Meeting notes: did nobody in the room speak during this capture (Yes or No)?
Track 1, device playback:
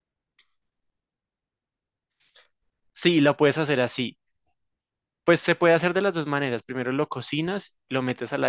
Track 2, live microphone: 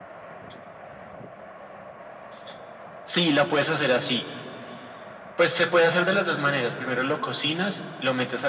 Yes